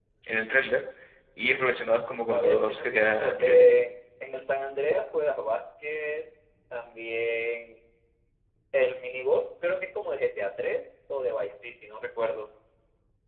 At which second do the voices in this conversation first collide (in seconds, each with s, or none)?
2.3 s